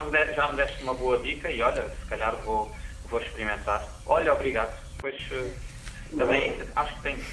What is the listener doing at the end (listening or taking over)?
listening